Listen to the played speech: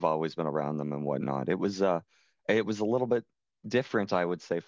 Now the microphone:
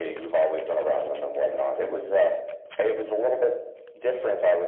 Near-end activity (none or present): none